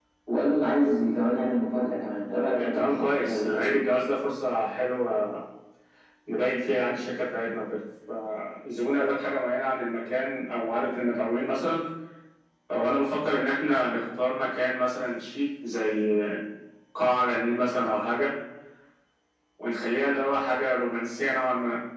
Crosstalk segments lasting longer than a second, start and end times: 2.5-3.8

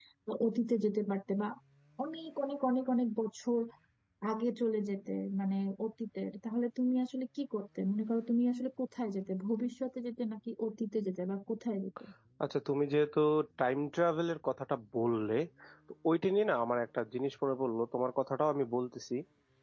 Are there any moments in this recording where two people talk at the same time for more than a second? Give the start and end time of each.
none

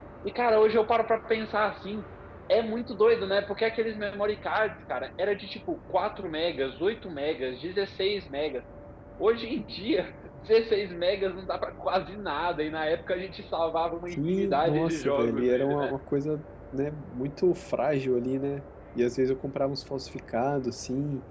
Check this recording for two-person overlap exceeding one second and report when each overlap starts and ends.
14.1-15.9

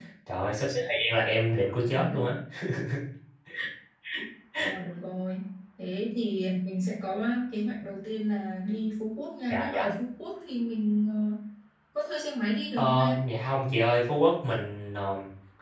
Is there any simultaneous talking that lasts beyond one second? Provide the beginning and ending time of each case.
none

